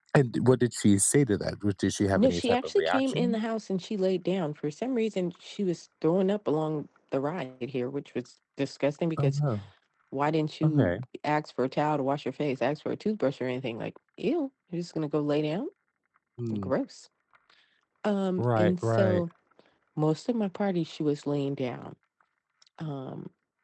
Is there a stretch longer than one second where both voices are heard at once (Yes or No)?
Yes